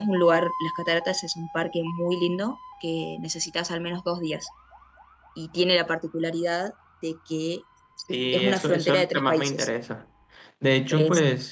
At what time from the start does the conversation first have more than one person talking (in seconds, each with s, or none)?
8.3 s